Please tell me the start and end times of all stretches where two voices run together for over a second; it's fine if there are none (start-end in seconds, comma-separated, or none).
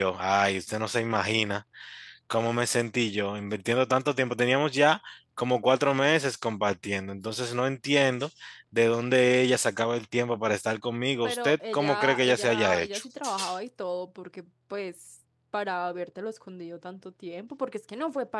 11.2-13.0